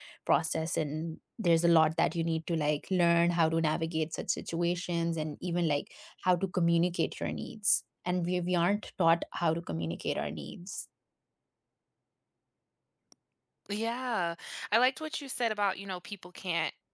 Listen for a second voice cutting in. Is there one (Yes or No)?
No